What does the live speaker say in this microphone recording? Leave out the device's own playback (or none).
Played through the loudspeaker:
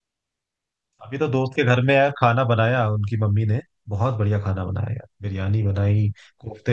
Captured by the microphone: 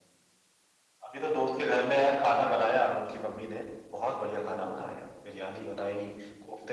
none